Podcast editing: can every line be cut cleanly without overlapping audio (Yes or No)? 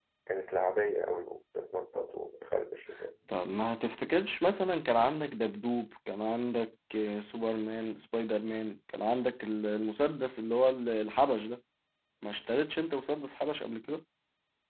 Yes